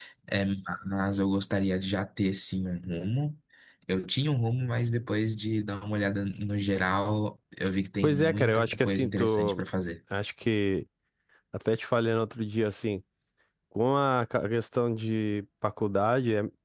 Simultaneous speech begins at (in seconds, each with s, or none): 8.0 s